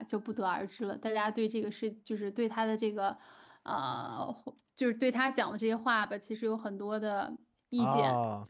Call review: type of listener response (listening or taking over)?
taking over